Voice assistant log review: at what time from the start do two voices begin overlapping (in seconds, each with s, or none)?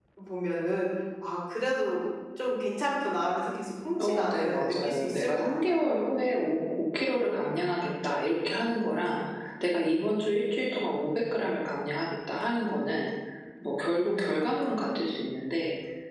4.0 s